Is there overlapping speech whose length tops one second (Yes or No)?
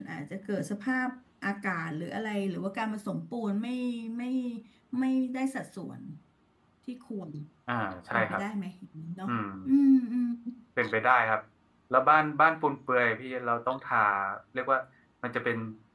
No